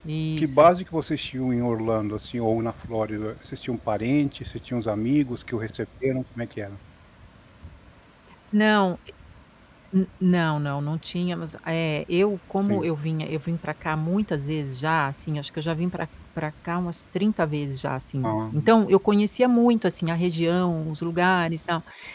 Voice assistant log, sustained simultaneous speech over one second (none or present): none